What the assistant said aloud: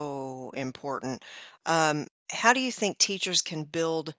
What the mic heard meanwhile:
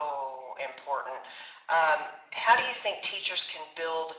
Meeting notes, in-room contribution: none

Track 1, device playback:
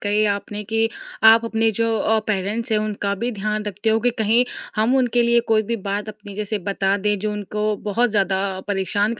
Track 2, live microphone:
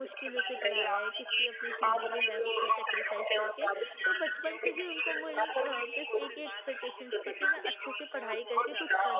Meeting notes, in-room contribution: present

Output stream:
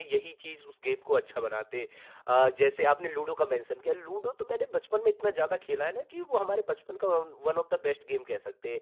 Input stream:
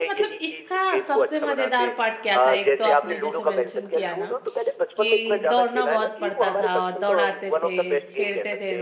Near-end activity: present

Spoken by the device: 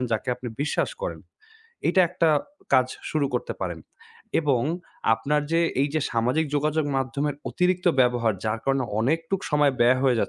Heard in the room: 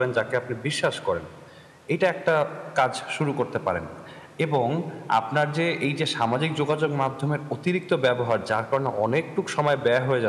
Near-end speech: none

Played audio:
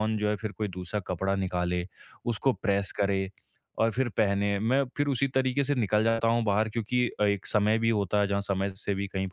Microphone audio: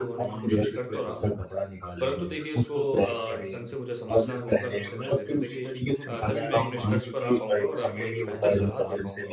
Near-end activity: present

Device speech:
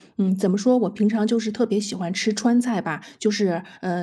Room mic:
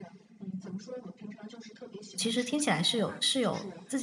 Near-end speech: present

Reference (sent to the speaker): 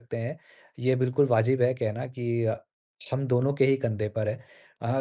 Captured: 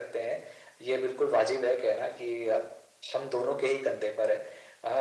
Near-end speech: none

